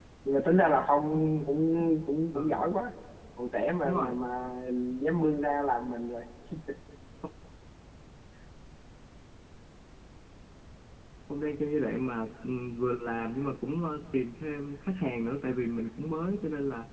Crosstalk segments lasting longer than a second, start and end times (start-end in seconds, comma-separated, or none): none